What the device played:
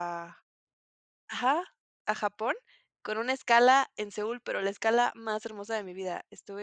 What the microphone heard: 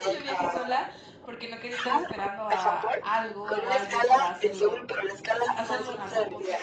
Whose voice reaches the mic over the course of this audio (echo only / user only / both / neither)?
both